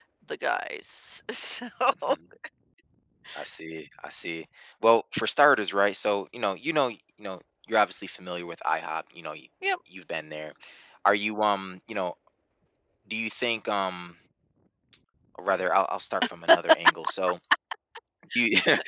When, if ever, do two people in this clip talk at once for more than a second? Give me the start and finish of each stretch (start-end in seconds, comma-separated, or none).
none